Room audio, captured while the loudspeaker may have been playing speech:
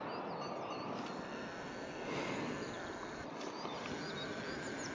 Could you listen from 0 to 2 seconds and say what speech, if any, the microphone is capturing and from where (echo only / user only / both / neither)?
neither